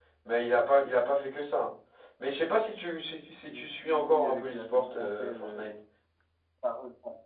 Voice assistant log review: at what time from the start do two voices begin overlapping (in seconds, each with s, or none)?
3.5 s